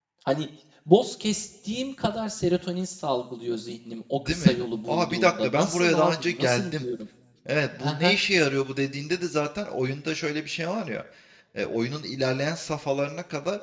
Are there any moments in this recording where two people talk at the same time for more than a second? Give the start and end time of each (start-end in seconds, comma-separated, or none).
4.2-6.8